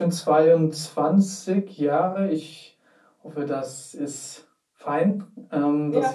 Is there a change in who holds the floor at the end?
Yes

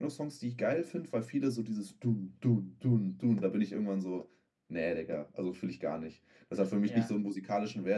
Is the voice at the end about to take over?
No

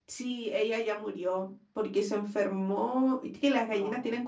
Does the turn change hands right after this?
No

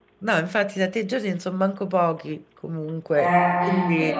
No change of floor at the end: No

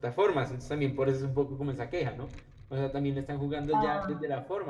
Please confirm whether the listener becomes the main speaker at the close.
No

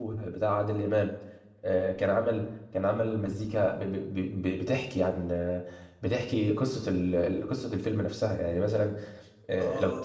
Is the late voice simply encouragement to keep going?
No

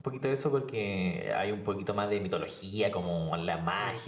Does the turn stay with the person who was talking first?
Yes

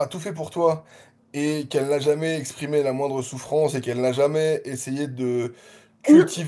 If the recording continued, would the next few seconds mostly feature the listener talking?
No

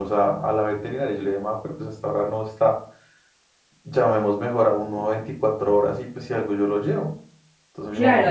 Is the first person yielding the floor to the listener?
Yes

